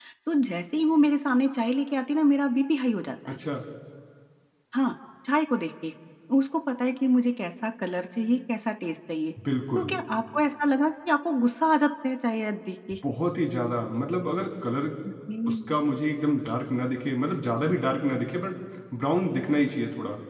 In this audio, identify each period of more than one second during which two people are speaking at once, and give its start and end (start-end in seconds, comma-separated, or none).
none